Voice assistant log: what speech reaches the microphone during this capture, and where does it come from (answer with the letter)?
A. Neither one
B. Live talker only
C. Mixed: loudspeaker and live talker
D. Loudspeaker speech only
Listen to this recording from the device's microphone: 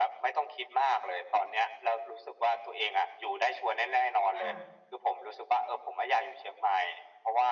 C